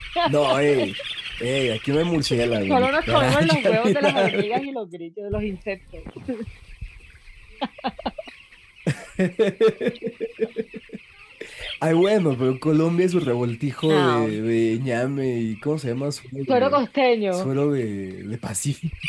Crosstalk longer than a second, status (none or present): present